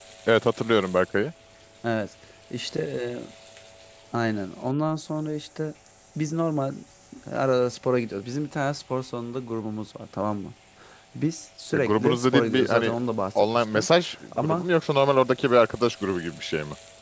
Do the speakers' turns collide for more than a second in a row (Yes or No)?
Yes